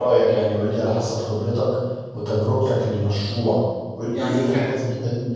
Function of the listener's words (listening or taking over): listening